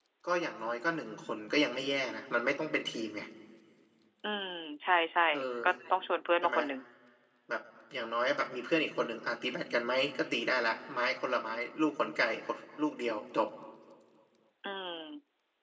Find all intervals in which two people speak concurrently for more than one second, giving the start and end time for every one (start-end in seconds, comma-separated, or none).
none